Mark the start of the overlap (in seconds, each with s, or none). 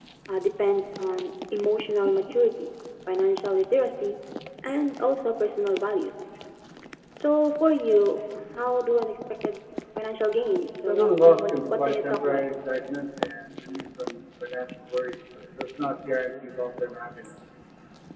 10.9 s